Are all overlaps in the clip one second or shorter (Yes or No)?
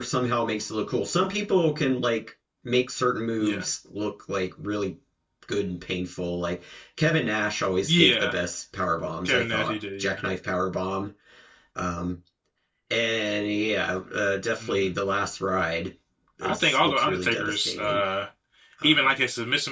No